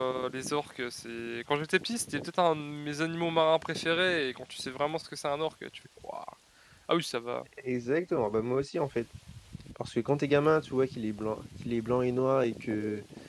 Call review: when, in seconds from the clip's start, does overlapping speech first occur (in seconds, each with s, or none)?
none